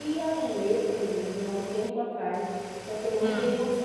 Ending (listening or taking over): listening